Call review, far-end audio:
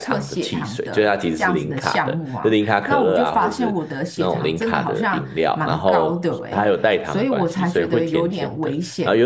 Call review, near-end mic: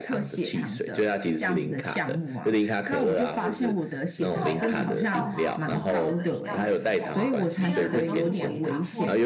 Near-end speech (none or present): present